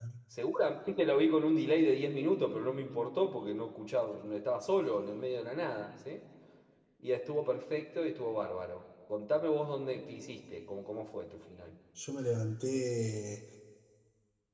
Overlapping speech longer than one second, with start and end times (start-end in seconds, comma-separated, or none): none